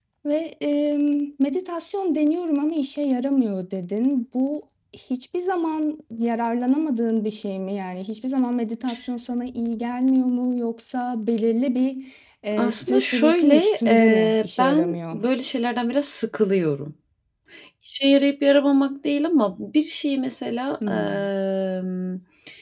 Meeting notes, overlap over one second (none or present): present